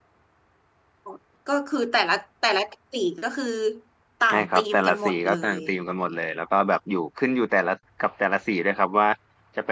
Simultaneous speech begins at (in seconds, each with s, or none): 4.3 s